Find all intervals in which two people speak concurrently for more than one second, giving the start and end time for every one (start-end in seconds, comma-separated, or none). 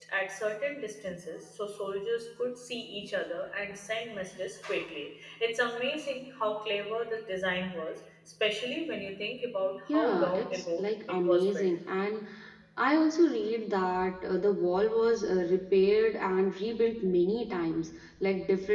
9.9-11.7